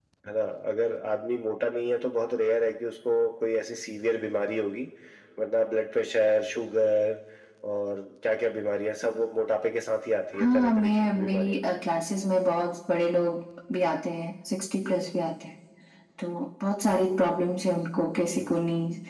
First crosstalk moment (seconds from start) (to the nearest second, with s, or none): 10 s